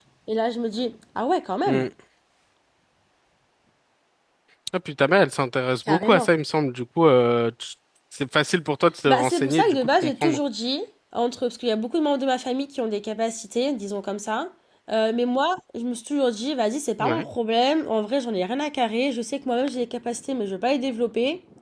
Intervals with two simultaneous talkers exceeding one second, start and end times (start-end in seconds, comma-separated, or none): 9.1-10.4